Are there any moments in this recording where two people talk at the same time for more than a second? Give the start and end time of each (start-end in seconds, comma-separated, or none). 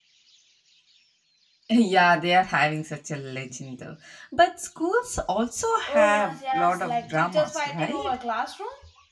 5.8-8.2